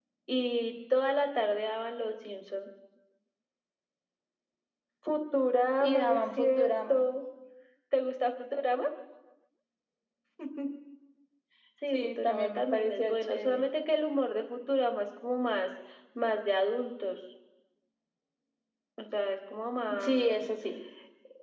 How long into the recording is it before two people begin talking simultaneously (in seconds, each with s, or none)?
5.8 s